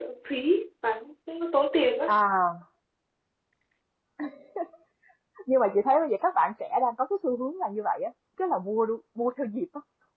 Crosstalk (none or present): none